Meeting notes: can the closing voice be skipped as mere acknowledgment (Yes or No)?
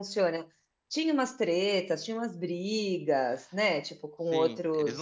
No